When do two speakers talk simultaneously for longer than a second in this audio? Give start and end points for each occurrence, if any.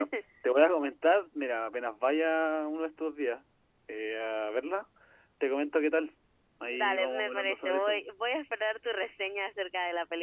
6.7-8.0

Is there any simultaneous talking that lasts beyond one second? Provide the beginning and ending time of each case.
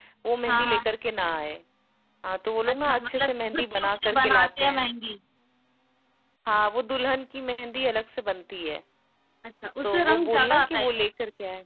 2.7-4.8, 9.8-11.1

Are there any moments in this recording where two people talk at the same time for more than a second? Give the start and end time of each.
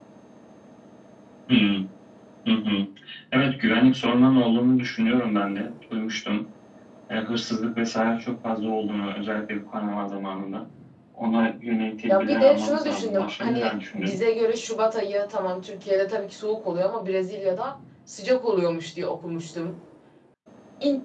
12.1-14.1

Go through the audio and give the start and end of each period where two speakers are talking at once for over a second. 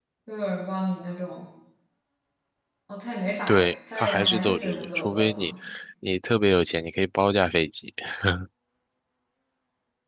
3.5-5.5

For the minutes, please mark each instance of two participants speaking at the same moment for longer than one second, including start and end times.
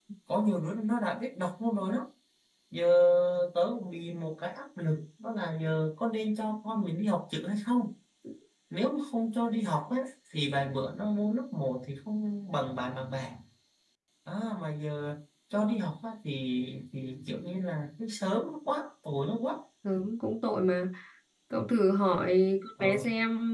none

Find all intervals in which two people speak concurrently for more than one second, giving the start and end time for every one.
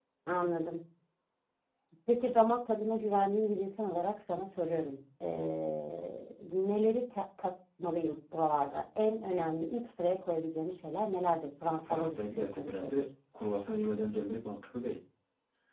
11.6-12.9

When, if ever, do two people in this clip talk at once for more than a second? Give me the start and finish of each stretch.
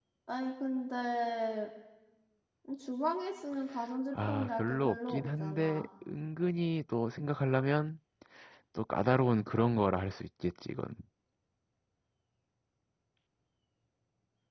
4.3-5.8

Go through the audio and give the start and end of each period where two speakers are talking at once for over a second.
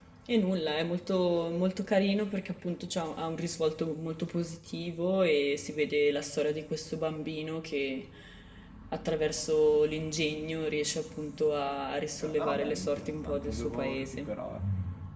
12.2-14.5

